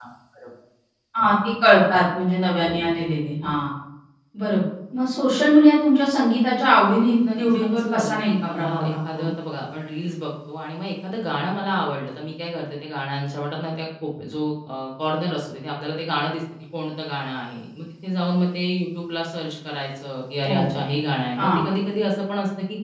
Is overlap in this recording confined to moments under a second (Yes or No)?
No